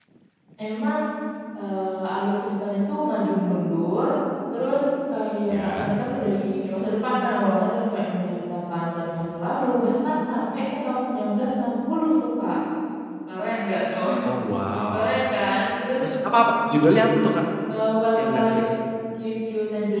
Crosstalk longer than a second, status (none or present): none